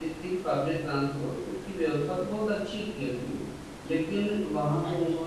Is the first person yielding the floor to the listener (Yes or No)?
No